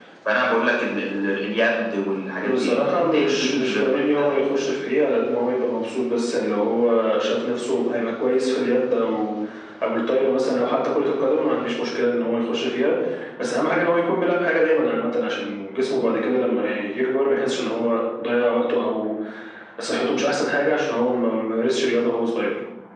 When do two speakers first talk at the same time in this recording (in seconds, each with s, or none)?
2.4 s